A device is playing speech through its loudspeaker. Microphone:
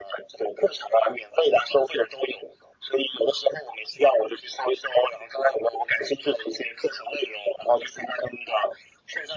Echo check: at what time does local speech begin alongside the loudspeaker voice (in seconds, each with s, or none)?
none